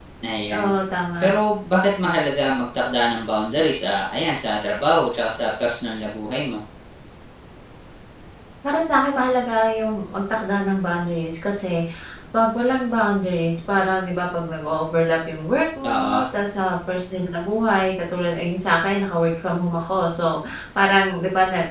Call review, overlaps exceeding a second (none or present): none